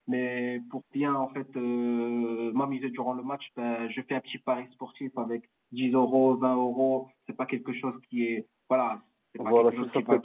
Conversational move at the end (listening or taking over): taking over